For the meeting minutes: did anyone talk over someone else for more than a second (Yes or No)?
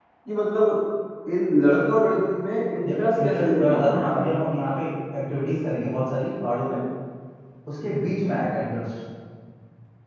Yes